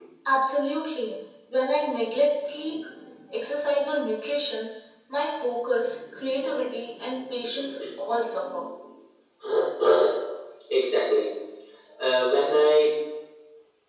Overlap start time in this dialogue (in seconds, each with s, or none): none